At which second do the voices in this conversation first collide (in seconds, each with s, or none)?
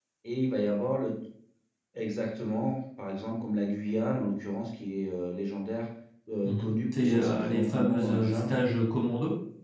6.4 s